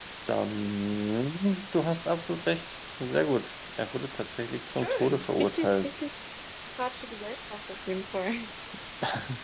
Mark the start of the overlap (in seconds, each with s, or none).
4.8 s